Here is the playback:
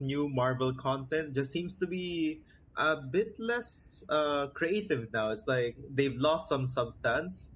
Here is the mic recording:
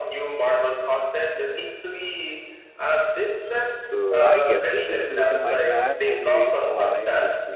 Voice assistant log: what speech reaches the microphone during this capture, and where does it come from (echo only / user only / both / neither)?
both